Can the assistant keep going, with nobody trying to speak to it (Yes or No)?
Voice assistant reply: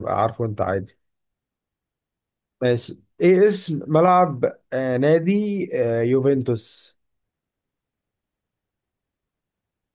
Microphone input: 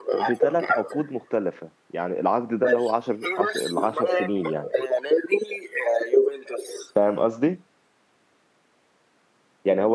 No